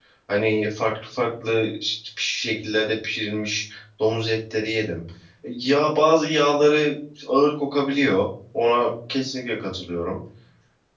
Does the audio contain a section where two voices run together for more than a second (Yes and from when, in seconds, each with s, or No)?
No